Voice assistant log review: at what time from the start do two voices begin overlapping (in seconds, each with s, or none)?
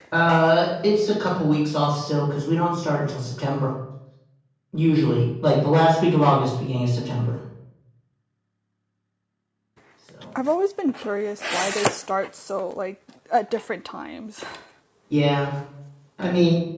none